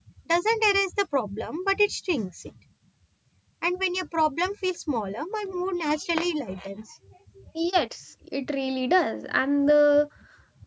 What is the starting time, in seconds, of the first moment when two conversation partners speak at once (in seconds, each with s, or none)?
none